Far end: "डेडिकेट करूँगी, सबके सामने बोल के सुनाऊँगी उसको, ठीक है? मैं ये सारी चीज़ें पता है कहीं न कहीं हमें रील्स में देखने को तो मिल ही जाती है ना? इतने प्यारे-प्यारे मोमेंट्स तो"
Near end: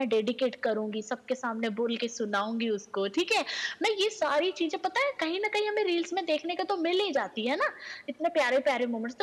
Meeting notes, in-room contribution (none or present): none